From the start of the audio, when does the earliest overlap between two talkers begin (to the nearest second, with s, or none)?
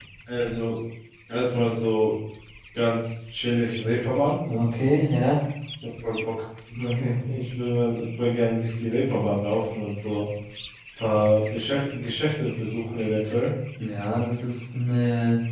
none